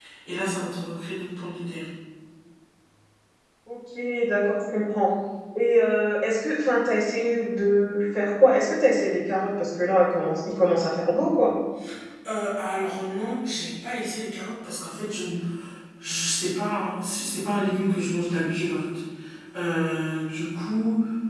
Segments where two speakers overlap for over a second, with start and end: none

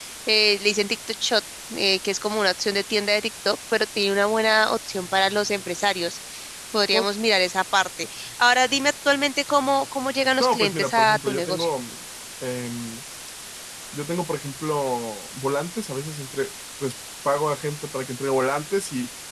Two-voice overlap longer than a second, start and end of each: 10.4-11.7

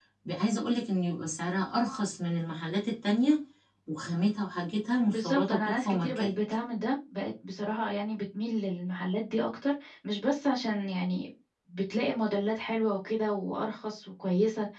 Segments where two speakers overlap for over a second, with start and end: 5.1-6.3

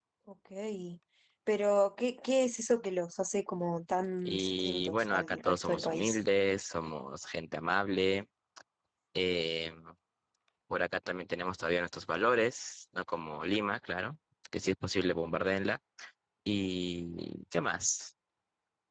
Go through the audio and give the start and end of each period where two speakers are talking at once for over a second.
4.2-6.2

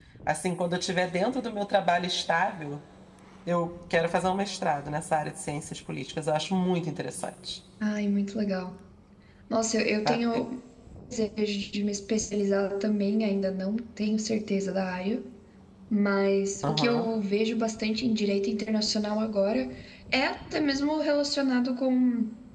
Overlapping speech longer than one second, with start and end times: none

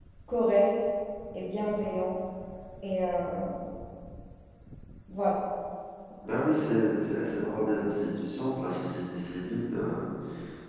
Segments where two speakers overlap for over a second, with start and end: none

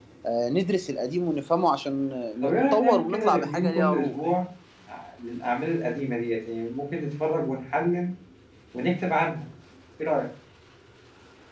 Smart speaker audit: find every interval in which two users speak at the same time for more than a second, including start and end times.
2.5-4.2

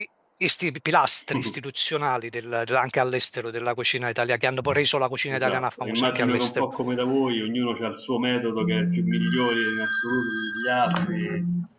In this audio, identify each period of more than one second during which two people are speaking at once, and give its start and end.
5.3-6.6

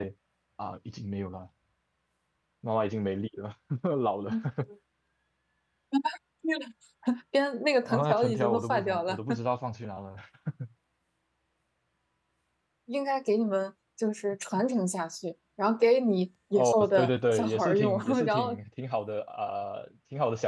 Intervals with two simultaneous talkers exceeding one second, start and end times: 7.8-9.2, 16.6-18.6

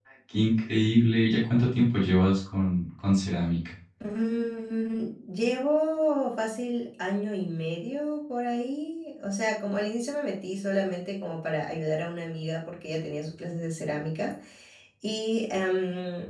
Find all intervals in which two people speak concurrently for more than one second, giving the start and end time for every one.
none

